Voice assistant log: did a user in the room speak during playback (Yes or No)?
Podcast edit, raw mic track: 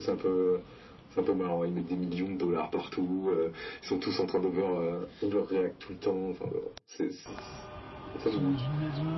Yes